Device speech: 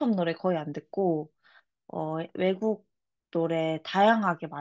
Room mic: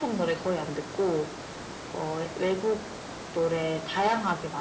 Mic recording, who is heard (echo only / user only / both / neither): echo only